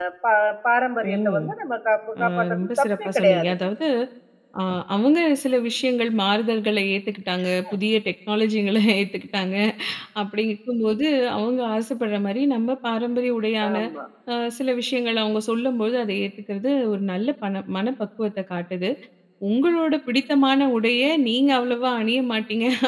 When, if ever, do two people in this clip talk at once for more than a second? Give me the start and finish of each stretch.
2.2-3.5

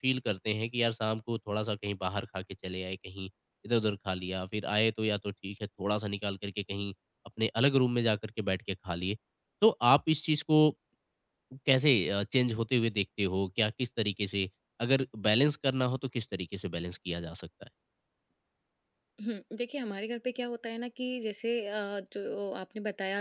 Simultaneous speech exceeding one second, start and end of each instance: none

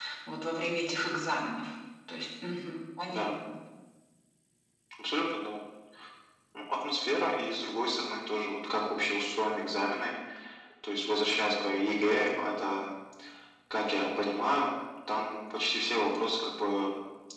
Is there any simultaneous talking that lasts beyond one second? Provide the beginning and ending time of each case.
none

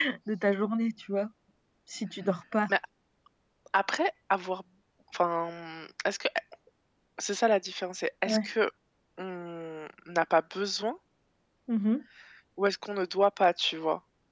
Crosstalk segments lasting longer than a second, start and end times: none

